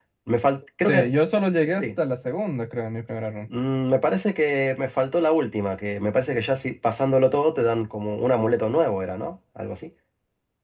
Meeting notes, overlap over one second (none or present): none